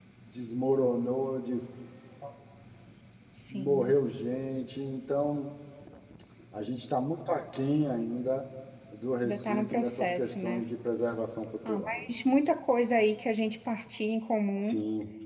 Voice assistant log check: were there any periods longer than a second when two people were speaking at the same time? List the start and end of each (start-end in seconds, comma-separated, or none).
9.2-10.6